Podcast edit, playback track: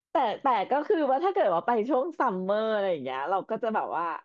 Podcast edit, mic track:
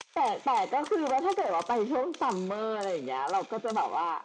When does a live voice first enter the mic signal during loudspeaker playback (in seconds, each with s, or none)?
none